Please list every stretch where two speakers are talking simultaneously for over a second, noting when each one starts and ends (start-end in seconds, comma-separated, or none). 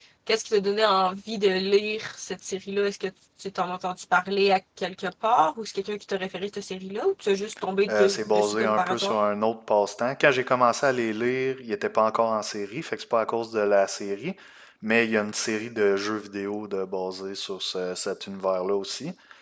7.9-9.2